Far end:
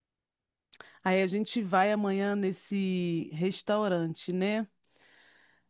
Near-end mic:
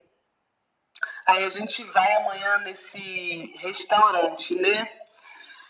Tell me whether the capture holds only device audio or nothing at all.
Yes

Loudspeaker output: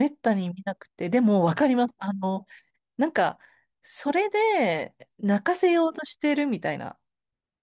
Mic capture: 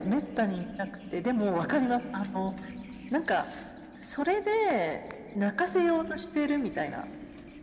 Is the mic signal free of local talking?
Yes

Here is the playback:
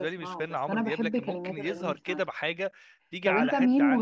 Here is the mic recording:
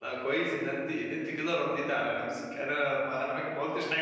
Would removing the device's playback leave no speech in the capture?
No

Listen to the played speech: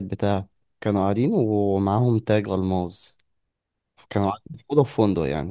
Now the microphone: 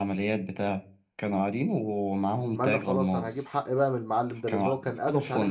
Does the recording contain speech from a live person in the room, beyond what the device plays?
Yes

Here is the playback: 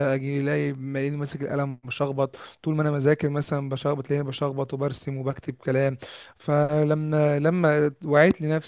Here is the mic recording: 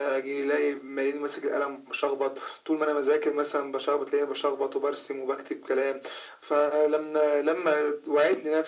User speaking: No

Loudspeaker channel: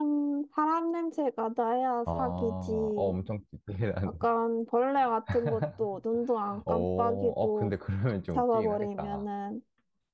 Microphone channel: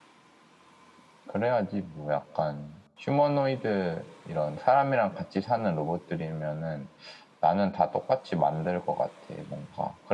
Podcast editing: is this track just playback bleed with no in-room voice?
No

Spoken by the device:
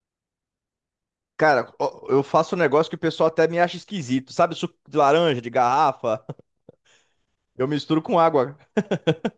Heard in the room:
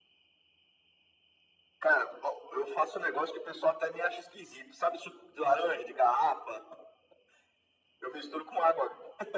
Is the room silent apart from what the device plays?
Yes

